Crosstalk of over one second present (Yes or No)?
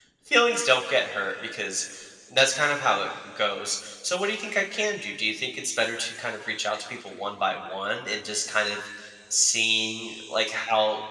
No